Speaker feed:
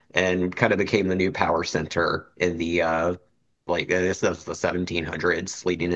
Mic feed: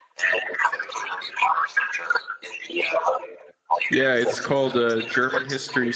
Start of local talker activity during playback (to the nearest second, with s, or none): 4 s